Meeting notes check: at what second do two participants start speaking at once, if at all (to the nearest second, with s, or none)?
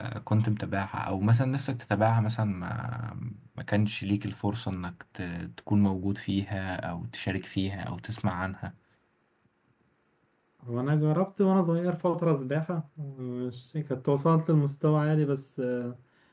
none